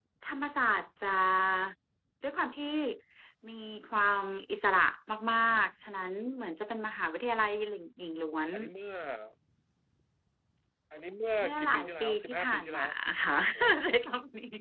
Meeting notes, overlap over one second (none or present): present